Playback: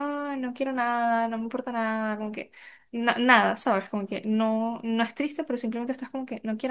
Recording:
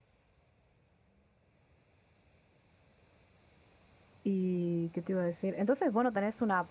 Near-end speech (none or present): present